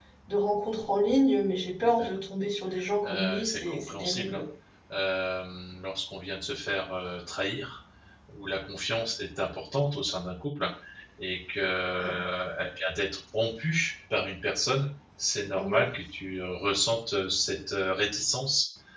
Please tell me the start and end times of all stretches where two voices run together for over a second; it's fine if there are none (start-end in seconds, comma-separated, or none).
3.0-4.4